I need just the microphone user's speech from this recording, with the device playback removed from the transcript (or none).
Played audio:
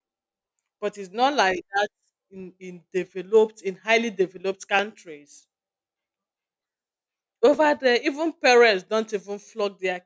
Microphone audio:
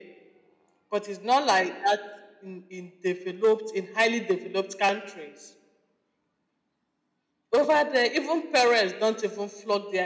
none